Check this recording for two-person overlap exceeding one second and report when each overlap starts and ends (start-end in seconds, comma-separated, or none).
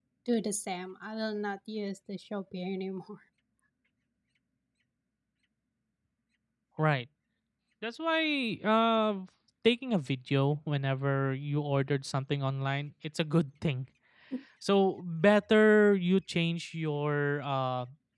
none